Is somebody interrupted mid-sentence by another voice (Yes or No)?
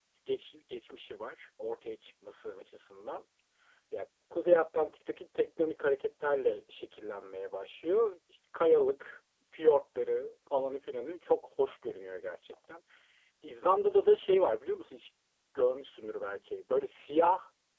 No